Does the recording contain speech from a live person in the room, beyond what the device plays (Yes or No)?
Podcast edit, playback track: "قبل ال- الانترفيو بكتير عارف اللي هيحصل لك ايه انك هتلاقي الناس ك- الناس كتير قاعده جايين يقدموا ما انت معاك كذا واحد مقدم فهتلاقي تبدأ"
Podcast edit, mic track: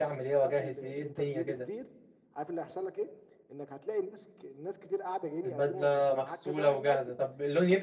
Yes